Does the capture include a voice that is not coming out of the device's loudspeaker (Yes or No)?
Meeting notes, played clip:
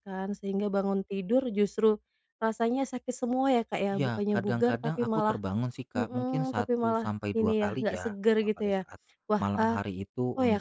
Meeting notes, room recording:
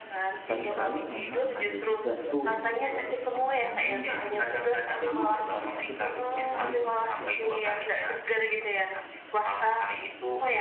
Yes